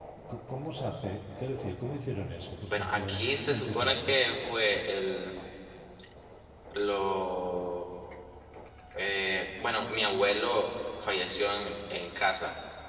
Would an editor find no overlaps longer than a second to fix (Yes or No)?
No